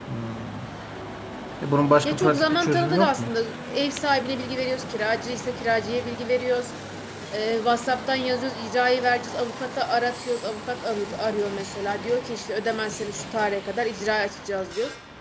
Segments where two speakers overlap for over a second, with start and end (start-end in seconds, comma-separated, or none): 2.0-3.3